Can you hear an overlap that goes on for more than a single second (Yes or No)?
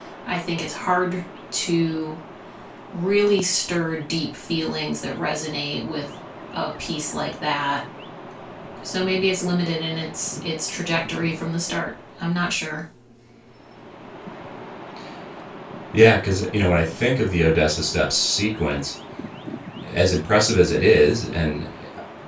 No